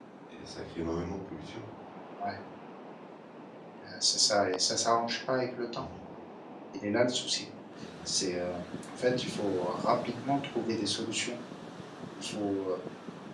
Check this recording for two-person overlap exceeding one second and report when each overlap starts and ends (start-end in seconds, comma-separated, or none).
none